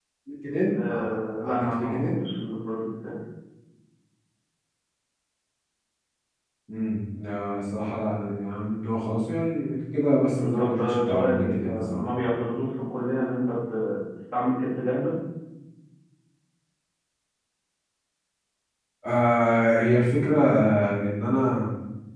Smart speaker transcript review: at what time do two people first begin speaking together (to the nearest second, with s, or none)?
1 s